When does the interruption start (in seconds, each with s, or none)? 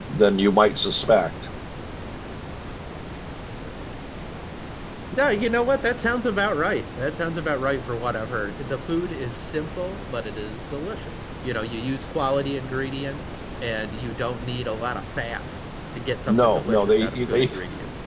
16.3 s